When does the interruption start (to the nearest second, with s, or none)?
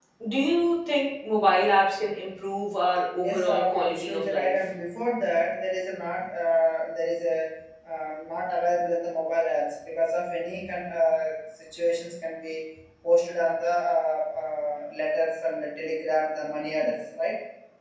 3 s